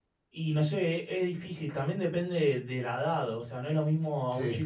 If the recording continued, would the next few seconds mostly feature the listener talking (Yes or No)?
No